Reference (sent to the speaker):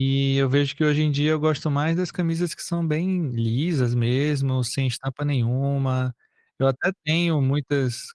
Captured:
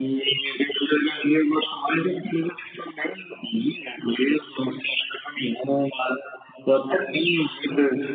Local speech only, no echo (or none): none